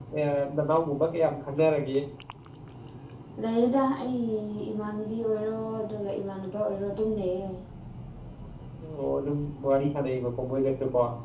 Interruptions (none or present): none